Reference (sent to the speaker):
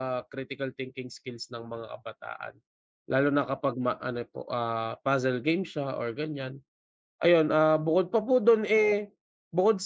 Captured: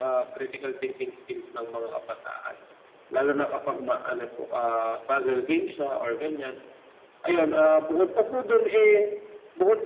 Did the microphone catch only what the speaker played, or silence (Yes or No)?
Yes